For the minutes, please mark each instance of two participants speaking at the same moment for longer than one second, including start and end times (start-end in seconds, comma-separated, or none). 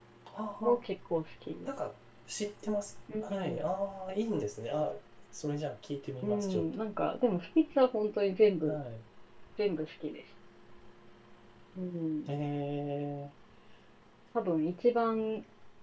none